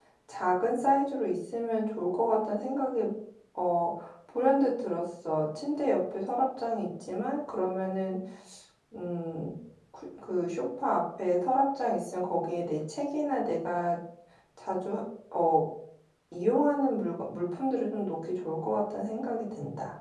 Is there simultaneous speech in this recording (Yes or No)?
No